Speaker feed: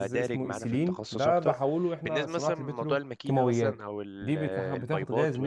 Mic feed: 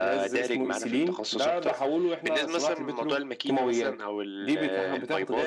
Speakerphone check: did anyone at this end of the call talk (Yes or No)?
No